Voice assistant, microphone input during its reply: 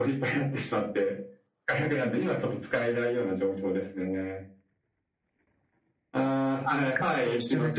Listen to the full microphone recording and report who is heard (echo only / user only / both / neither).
both